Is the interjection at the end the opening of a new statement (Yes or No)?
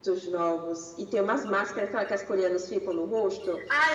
Yes